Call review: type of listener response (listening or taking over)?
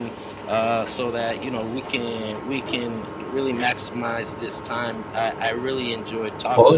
taking over